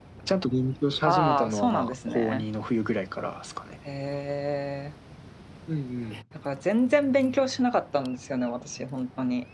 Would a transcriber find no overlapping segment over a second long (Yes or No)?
No